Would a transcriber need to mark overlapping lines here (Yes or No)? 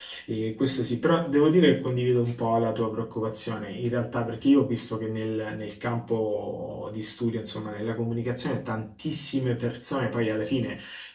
No